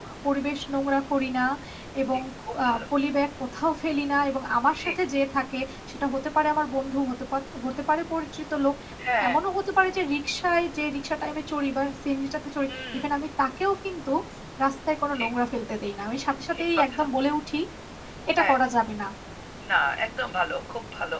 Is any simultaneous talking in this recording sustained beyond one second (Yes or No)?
No